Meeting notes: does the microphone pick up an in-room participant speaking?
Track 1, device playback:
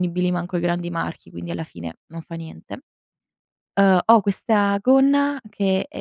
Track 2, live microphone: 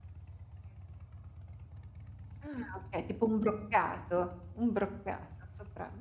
Yes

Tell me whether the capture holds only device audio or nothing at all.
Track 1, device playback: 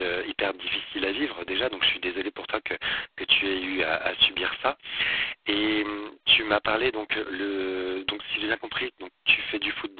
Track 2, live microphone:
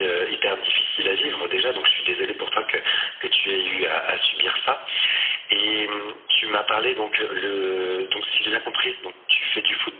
Yes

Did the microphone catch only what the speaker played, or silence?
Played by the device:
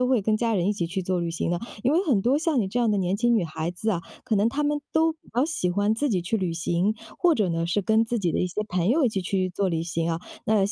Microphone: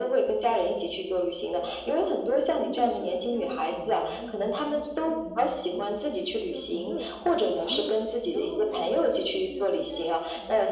No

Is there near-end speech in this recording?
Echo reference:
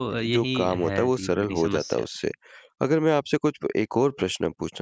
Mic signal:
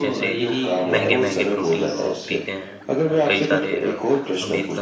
Yes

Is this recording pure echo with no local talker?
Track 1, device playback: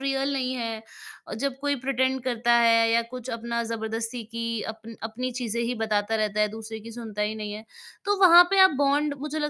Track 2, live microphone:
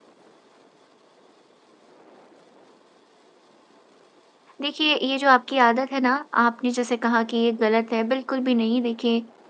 No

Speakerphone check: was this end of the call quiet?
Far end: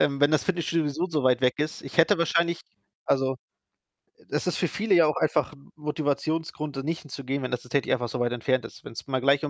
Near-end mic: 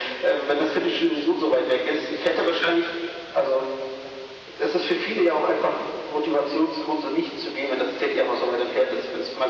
Yes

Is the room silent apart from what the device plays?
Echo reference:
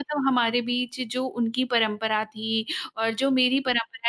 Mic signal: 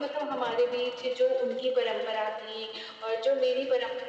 Yes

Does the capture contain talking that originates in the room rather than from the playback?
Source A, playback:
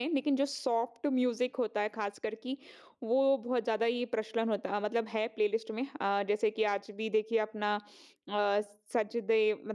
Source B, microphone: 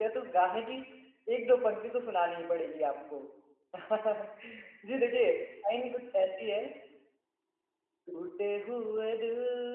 Yes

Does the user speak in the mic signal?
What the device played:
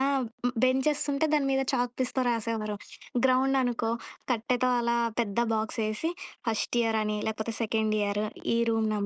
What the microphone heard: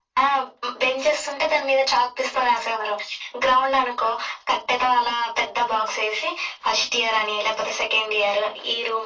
No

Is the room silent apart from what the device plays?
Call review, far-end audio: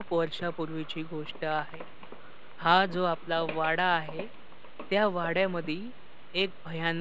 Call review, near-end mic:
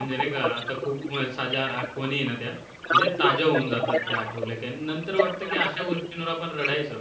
No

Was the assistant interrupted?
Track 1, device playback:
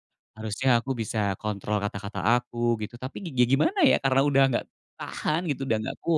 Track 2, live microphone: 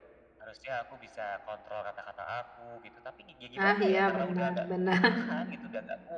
Yes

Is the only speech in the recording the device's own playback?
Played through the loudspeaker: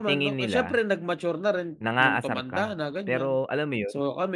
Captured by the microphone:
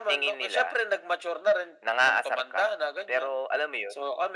Yes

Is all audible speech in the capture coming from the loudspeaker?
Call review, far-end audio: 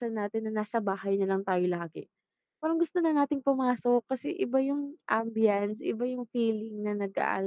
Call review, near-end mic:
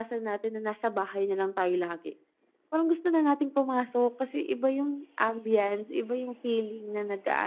Yes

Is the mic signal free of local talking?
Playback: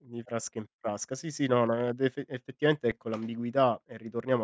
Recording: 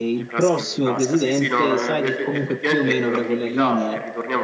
No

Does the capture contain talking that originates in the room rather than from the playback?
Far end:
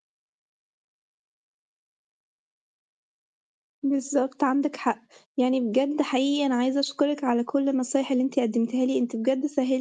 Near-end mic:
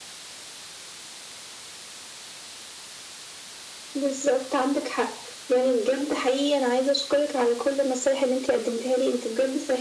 No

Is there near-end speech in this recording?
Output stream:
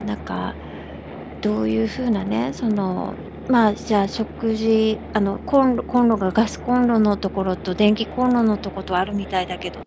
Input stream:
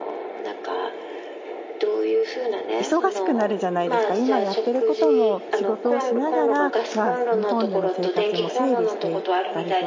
Yes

